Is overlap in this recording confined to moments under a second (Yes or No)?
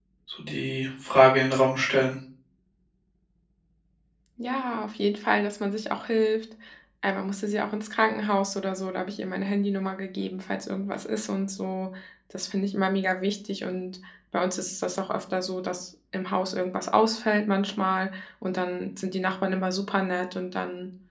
Yes